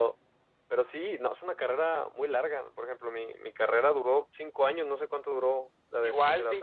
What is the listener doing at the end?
taking over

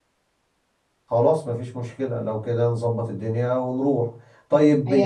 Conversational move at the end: listening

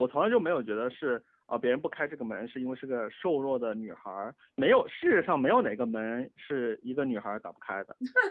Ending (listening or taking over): taking over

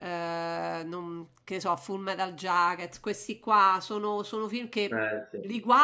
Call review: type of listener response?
listening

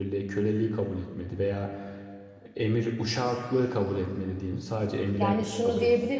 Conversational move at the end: taking over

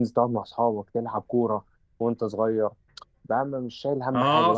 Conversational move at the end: taking over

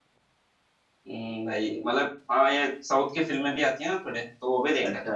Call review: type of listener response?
taking over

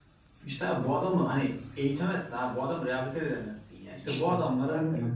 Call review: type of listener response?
taking over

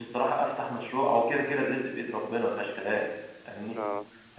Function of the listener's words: listening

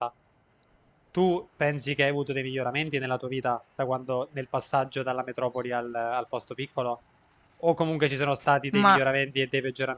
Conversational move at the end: listening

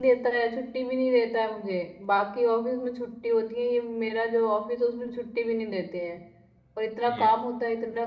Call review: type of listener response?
listening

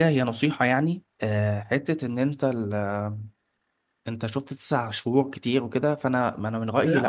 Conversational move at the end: taking over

